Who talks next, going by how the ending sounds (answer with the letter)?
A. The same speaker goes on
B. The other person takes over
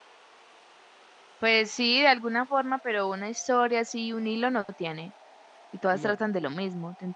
A